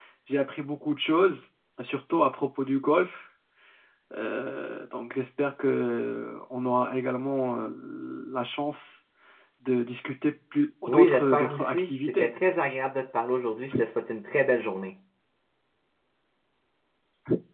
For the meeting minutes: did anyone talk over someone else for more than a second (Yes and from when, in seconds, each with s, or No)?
Yes, from 10.9 s